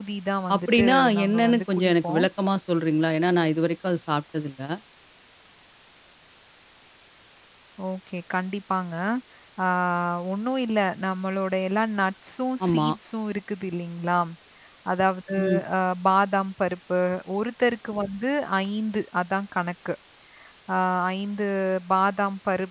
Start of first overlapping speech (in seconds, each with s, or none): 0.6 s